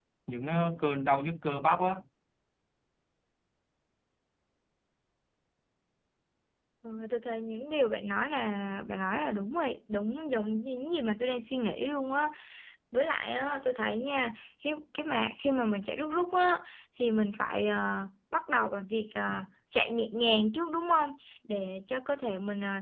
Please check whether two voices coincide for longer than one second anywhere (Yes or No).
No